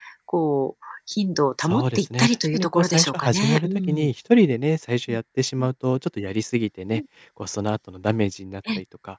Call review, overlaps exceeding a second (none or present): present